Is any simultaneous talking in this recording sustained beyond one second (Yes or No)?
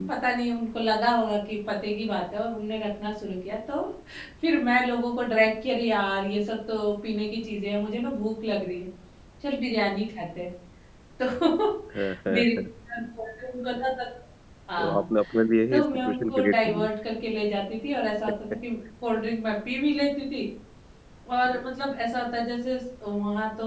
Yes